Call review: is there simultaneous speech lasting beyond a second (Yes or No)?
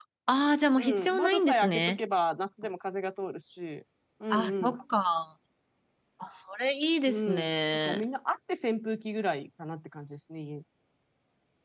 Yes